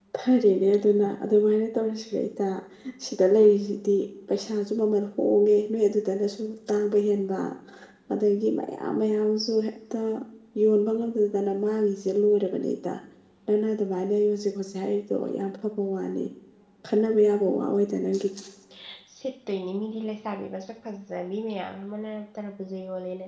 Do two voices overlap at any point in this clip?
No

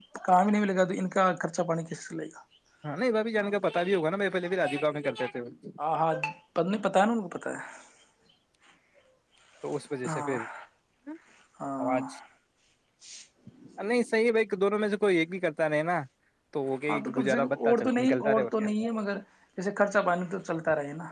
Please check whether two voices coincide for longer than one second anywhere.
Yes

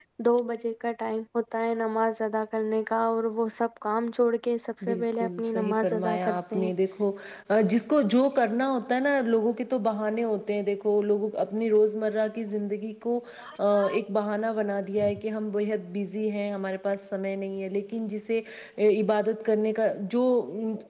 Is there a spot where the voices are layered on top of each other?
Yes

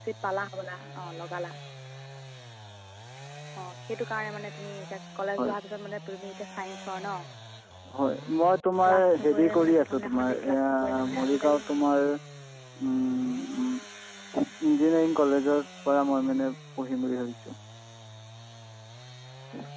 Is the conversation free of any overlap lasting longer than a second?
No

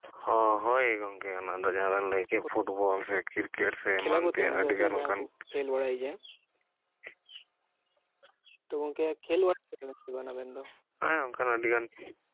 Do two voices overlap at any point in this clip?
Yes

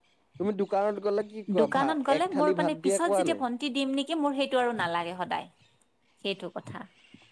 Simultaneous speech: Yes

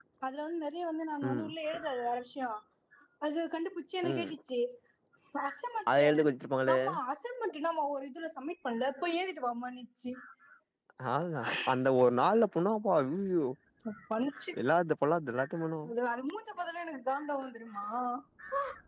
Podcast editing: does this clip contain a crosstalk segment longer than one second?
No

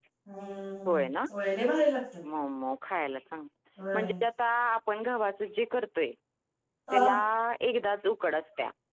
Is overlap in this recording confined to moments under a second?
Yes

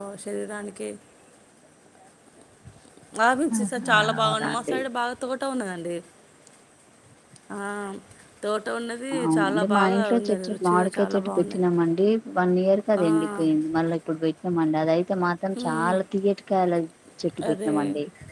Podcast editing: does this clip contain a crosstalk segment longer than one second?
Yes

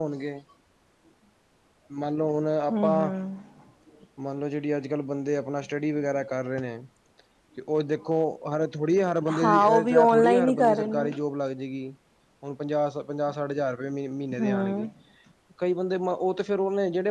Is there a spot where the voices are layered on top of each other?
Yes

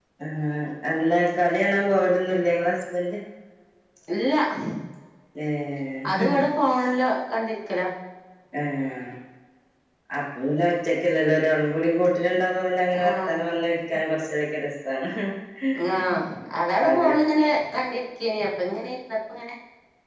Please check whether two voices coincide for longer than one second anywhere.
No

